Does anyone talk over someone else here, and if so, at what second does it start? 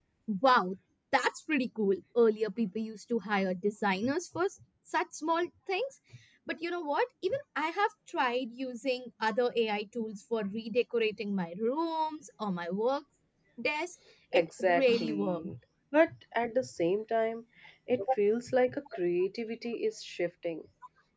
14 s

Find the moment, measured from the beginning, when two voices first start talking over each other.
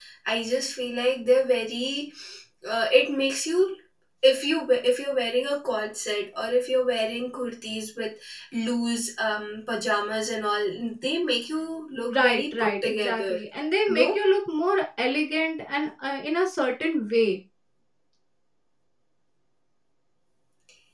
12 s

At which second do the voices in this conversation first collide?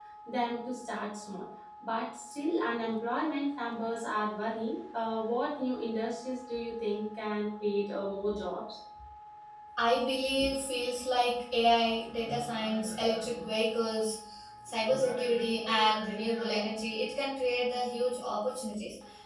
none

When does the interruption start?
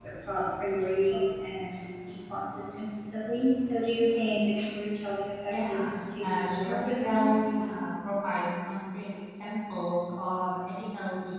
6 s

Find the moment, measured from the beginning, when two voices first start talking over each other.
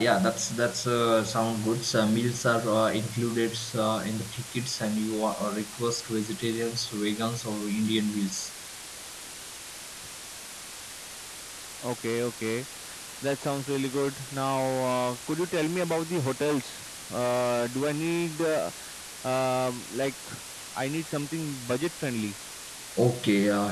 none

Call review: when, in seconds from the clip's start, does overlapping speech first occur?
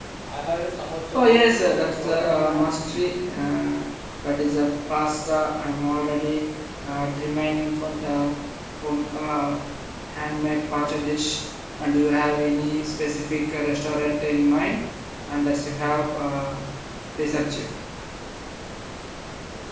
1 s

